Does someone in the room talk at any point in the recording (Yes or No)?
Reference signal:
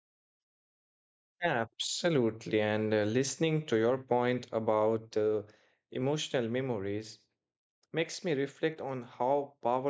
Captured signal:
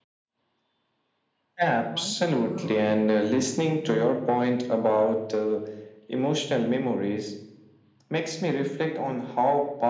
Yes